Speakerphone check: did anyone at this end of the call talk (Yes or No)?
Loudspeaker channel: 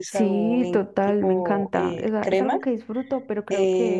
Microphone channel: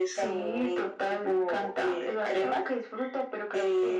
No